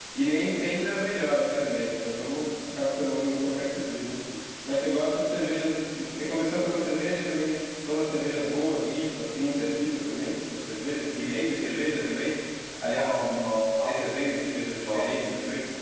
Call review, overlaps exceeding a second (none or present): none